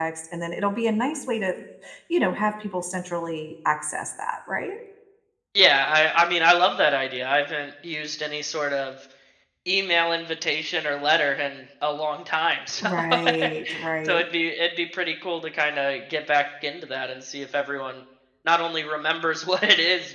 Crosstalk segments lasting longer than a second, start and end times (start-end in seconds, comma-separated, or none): none